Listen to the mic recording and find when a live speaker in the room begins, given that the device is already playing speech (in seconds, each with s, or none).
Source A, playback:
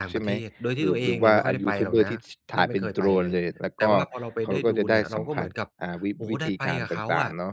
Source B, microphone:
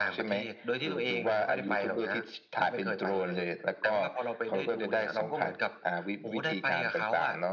none